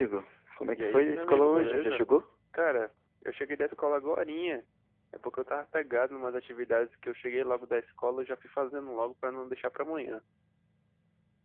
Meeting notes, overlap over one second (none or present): present